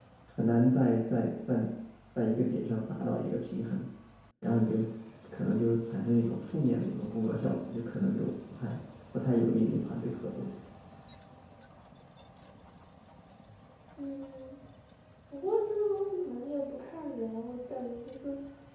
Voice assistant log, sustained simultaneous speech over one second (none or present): none